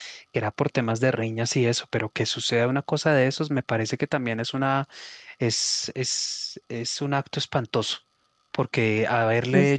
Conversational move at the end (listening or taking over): listening